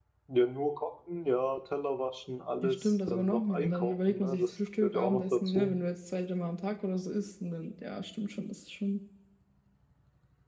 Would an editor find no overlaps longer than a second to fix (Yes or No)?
No